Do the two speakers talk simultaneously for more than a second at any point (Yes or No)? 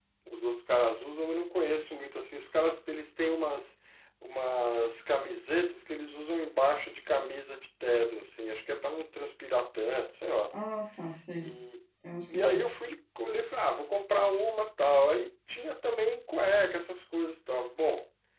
No